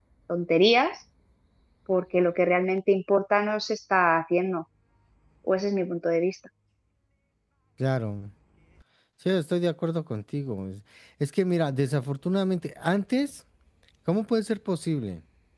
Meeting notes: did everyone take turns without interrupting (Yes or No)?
Yes